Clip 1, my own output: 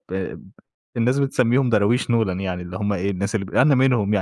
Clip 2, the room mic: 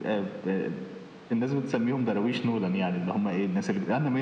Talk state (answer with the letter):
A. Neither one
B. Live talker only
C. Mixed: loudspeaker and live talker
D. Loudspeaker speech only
D